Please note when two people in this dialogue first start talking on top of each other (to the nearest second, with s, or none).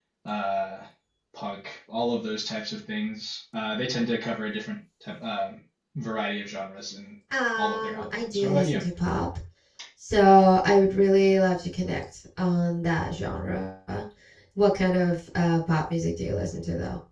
8 s